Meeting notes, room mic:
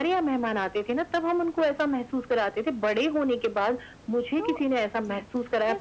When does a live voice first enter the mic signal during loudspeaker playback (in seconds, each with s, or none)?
4.4 s